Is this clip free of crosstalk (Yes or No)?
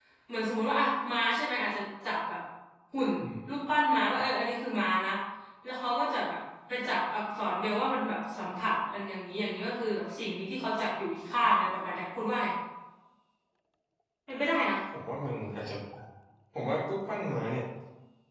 Yes